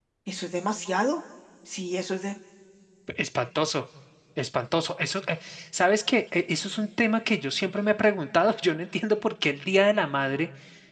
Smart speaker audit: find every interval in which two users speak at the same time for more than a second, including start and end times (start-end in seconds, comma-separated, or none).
none